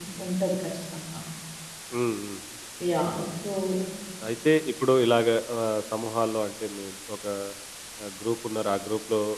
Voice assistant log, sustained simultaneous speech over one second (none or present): none